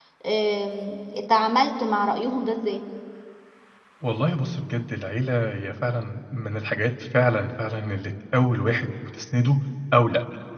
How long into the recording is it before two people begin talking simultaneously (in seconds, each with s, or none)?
none